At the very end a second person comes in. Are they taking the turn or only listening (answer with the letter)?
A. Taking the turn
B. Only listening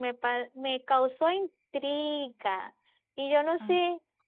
B